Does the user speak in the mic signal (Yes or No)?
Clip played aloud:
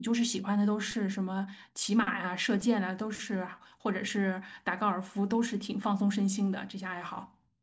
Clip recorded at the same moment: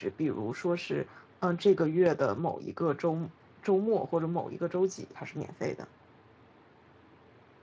Yes